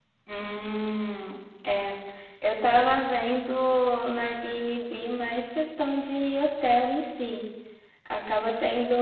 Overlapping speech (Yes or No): No